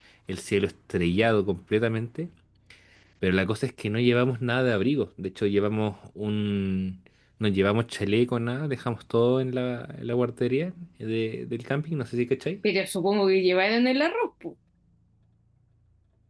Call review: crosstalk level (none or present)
none